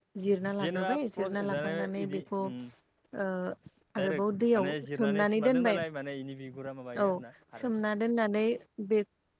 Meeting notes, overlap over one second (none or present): present